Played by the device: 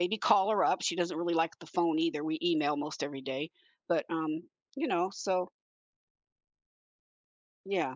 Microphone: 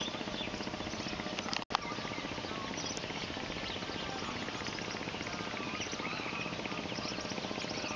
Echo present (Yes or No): No